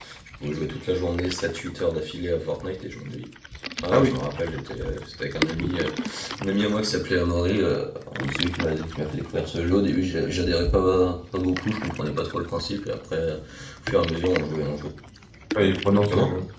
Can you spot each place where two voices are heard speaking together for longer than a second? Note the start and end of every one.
none

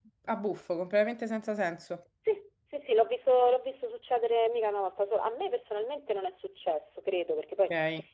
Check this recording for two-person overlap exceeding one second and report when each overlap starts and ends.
none

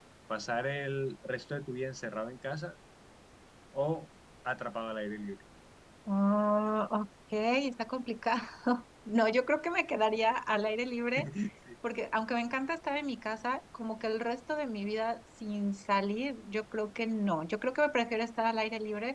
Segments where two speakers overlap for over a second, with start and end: none

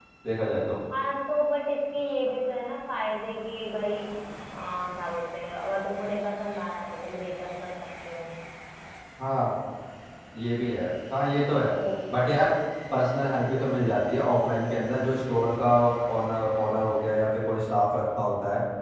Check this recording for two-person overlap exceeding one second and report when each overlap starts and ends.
none

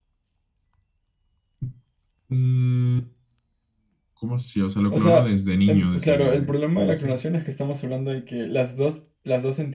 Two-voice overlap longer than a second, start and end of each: 5.7-7.2

